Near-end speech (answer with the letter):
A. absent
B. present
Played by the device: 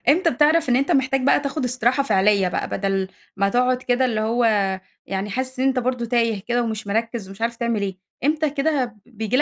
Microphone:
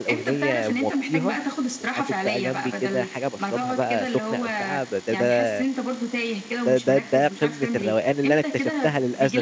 B